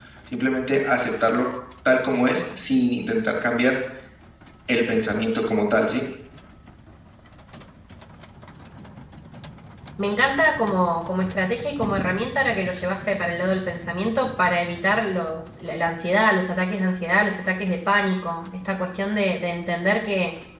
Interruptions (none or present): none